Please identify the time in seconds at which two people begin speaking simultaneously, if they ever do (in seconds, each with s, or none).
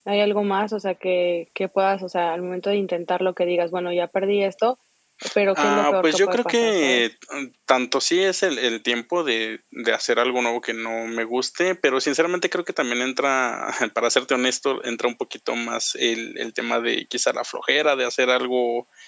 5.6 s